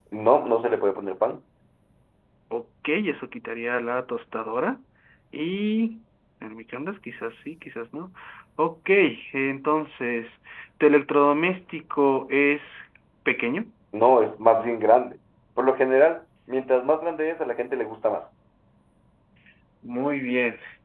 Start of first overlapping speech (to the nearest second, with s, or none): none